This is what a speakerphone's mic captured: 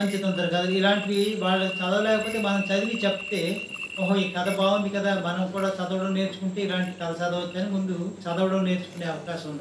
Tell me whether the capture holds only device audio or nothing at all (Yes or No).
Yes